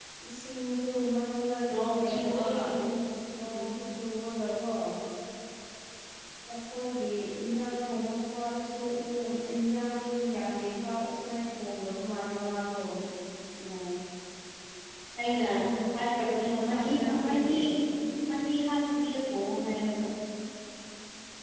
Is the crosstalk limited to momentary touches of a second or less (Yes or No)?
No